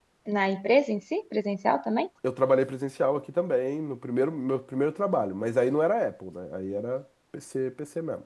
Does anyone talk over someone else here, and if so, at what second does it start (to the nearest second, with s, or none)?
none